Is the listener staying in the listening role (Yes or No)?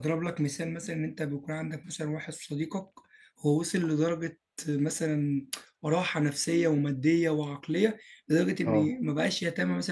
Yes